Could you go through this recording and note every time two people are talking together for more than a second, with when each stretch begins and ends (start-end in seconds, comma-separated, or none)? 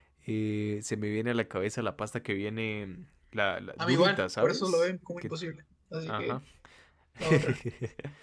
3.8-5.3